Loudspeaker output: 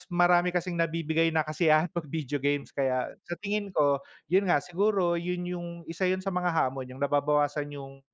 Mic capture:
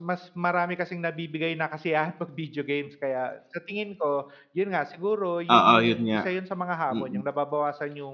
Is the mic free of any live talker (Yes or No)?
No